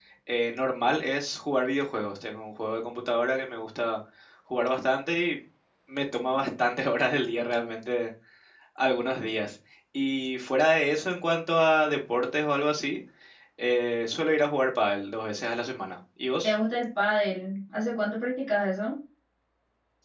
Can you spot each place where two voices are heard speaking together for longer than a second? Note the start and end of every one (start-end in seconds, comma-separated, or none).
none